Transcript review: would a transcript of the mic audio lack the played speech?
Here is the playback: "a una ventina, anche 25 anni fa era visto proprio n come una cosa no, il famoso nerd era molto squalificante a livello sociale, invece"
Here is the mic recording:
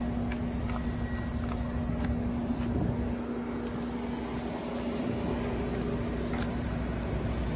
Yes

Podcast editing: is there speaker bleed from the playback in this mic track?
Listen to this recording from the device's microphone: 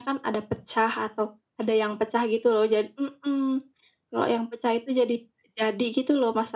Yes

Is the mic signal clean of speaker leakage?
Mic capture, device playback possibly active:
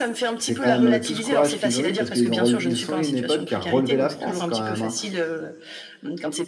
No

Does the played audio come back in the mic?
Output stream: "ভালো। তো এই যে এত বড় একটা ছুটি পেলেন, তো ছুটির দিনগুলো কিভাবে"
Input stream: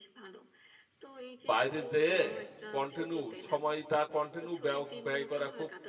Yes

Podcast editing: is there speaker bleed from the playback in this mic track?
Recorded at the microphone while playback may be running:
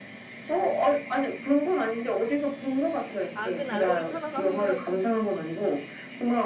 Yes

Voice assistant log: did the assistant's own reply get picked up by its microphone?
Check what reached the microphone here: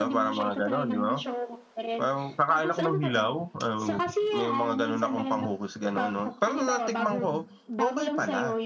Yes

